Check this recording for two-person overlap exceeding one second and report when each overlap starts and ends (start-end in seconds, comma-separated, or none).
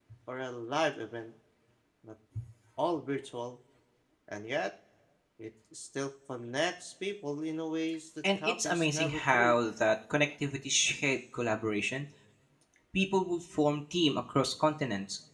8.4-9.6